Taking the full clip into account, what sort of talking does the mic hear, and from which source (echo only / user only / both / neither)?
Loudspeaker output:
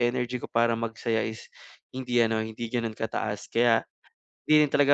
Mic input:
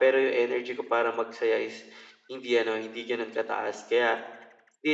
echo only